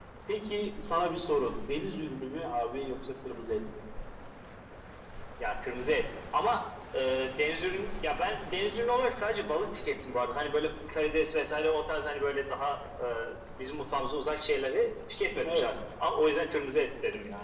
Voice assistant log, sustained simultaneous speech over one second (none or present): none